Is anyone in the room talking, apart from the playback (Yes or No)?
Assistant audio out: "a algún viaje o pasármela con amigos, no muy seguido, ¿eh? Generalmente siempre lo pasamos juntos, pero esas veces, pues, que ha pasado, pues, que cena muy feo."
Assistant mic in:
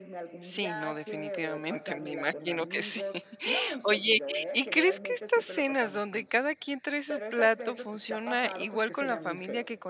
Yes